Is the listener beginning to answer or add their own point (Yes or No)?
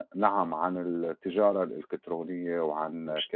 No